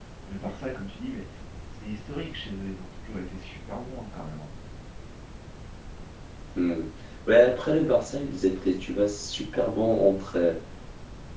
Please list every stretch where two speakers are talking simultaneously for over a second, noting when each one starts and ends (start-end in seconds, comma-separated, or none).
none